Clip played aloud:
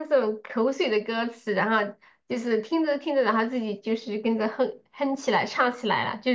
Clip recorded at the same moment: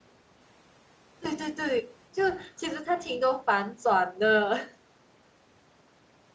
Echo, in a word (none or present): none